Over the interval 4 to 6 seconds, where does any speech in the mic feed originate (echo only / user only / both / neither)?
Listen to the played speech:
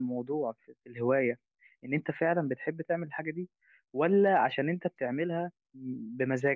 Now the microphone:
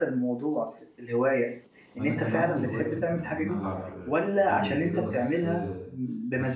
both